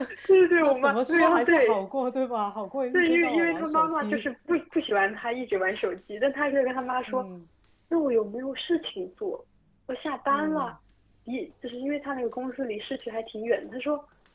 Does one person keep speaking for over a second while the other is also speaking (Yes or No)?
Yes